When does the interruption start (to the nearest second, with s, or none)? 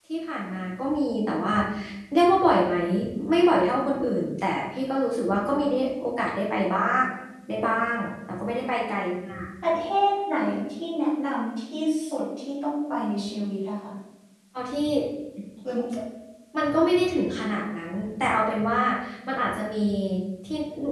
none